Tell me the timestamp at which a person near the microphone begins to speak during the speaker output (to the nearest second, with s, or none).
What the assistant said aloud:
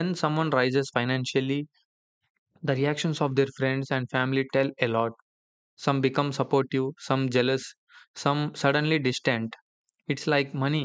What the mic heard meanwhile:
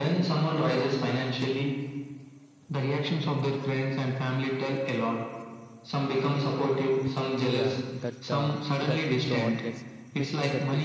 7 s